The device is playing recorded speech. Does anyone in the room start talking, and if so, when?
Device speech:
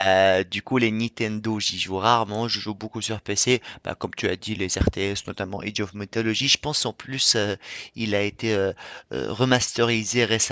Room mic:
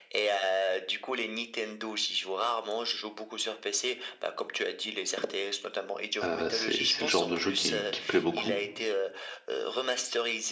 6.2 s

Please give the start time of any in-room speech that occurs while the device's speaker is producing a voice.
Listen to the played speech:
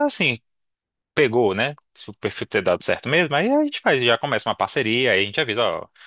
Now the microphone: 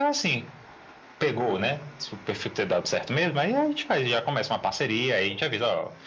none

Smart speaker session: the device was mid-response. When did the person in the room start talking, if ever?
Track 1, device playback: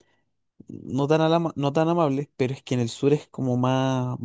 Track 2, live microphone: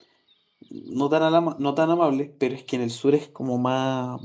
none

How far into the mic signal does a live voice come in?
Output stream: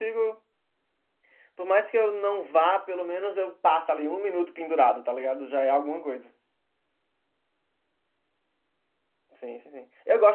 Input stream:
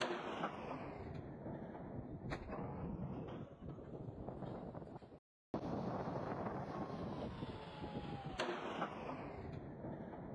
none

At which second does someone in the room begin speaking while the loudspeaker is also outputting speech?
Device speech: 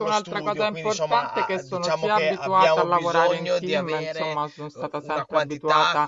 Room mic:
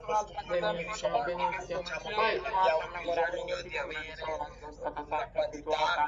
0.4 s

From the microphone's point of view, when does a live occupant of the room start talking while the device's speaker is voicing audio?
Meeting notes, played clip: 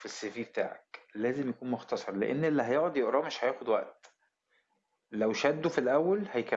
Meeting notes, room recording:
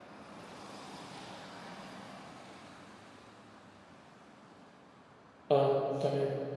5.5 s

